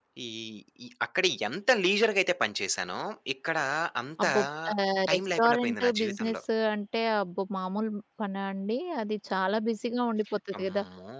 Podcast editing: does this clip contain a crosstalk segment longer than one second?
Yes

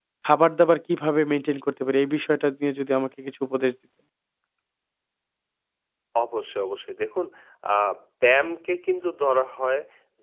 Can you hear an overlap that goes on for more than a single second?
No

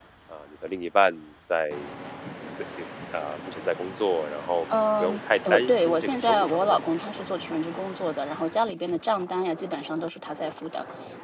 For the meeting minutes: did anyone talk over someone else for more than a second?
Yes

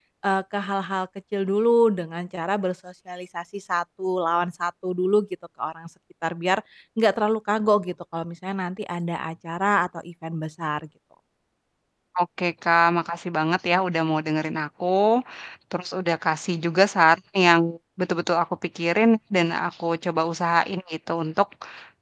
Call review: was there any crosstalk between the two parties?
No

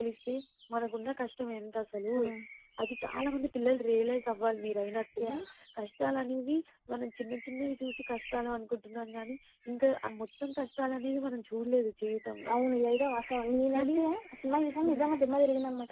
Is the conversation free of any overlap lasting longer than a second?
Yes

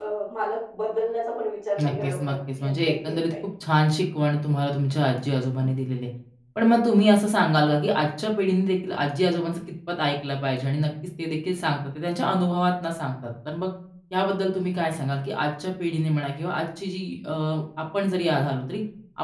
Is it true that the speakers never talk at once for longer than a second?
No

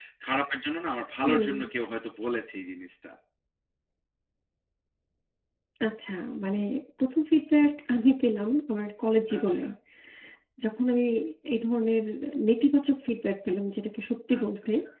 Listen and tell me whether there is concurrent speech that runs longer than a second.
No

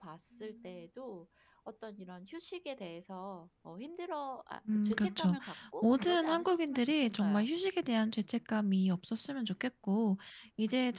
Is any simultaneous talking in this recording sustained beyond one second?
Yes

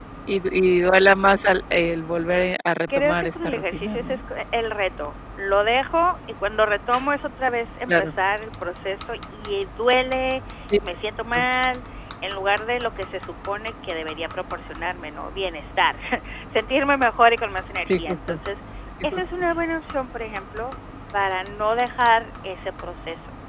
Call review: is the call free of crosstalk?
No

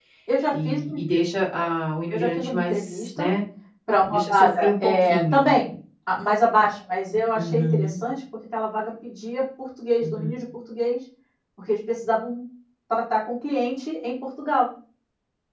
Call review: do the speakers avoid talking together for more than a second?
No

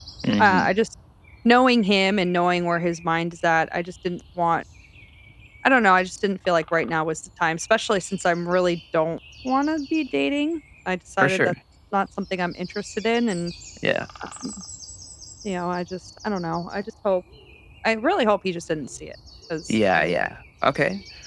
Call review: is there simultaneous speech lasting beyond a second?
No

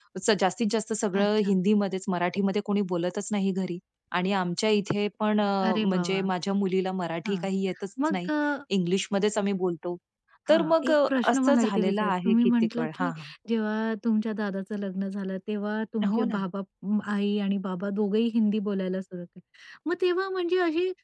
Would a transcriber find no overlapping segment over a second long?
No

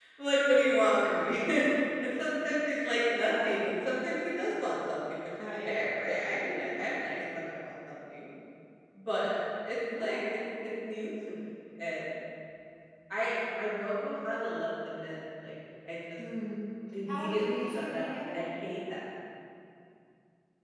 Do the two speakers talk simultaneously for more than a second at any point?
Yes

